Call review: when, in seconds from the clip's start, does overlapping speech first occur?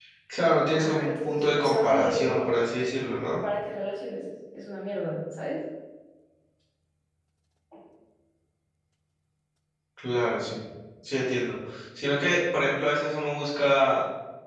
0.8 s

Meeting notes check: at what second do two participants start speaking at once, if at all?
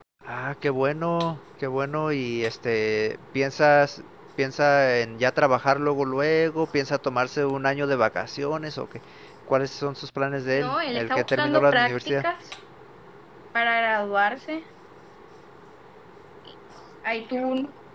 10.5 s

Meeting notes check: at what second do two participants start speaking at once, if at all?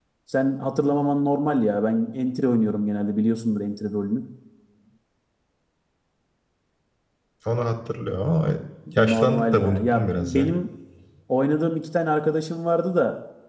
9.0 s

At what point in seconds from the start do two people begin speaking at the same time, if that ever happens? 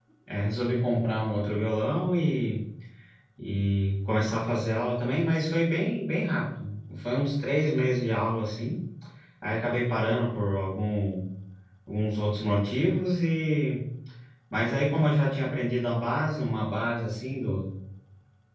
none

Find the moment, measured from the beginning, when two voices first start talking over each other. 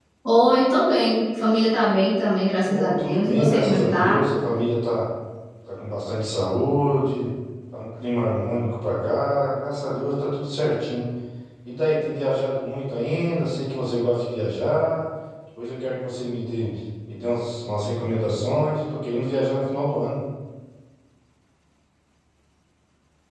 2.6 s

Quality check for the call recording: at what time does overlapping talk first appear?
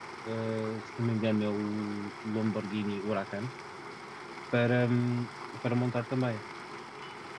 none

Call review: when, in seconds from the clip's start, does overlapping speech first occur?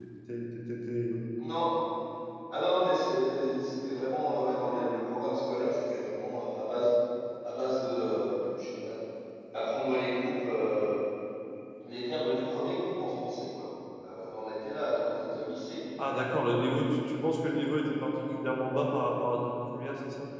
none

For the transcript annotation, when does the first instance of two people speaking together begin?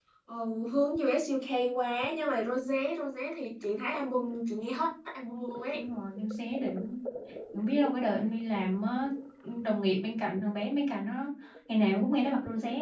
none

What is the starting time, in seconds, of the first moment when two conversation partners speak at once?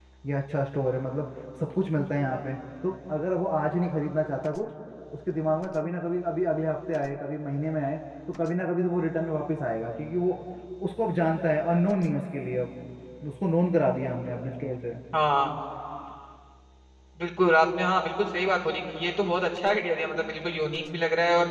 none

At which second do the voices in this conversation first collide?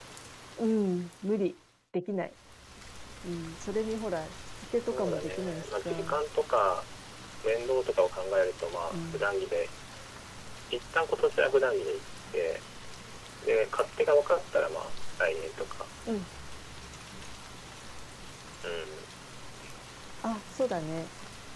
4.9 s

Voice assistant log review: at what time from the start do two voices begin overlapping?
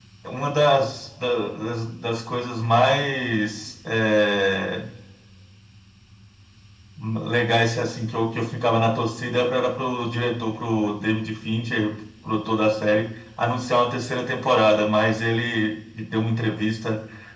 none

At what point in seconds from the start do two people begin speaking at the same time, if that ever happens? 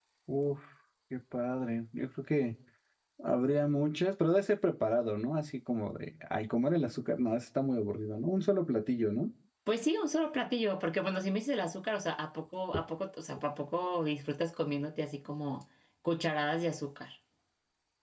none

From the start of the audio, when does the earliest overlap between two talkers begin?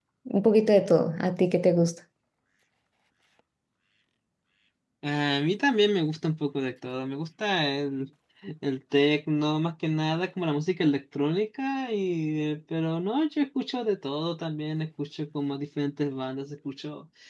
none

